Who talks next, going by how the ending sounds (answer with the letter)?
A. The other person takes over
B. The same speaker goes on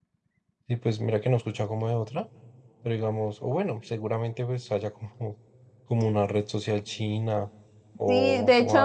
A